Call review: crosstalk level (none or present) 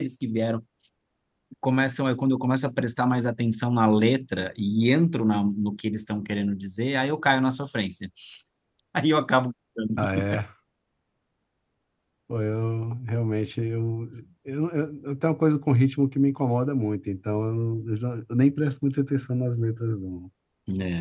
none